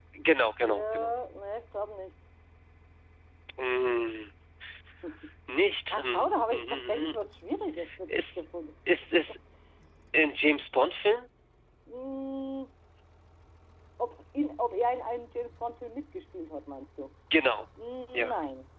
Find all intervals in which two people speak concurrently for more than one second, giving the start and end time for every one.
5.9-7.1

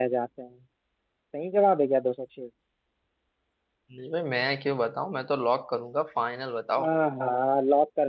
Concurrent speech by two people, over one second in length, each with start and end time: none

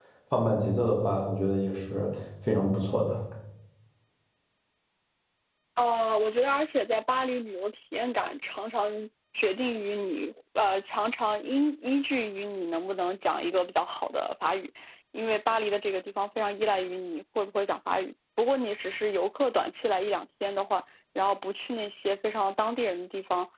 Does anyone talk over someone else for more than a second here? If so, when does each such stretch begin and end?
none

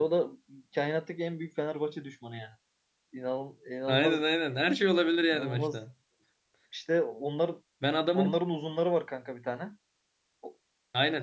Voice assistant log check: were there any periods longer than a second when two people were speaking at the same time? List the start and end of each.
none

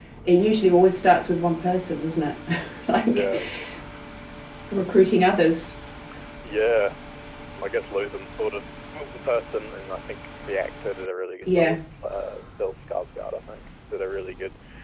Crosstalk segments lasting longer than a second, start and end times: none

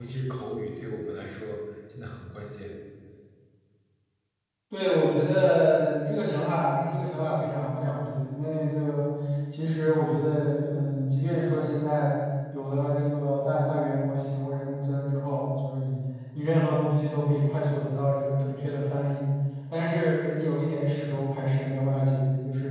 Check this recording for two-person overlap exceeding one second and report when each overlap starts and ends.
none

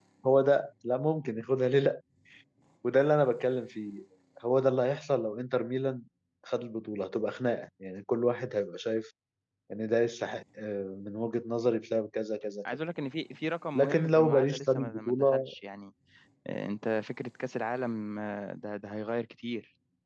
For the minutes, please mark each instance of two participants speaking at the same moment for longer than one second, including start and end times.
13.8-15.5

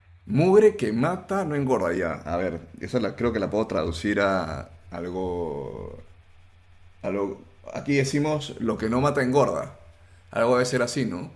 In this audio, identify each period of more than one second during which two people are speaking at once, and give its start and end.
none

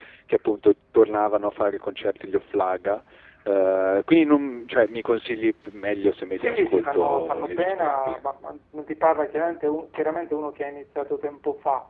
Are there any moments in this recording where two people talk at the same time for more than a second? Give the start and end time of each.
6.3-8.2

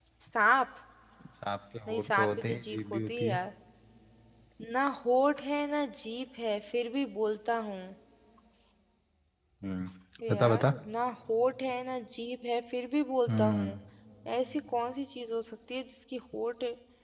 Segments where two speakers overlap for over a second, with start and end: 1.9-3.4

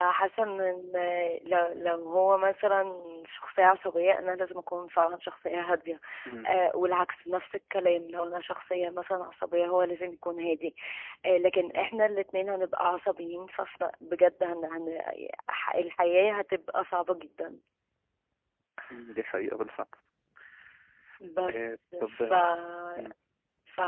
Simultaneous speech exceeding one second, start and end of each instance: none

